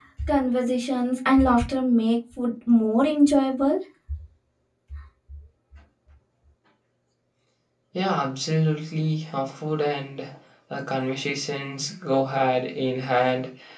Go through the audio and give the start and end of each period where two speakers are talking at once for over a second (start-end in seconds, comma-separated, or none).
none